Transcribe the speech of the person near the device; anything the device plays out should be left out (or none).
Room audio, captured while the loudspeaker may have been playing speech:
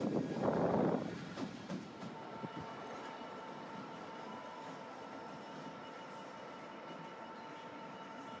none